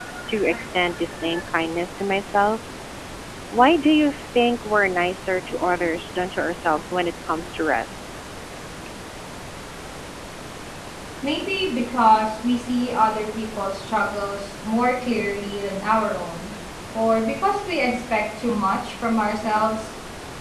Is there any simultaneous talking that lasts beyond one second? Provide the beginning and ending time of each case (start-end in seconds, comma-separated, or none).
none